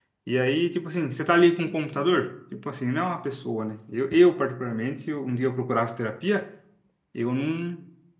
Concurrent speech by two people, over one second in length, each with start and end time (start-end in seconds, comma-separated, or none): none